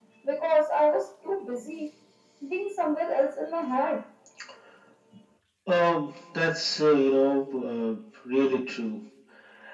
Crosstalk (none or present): none